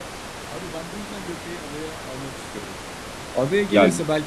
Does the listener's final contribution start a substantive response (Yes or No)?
No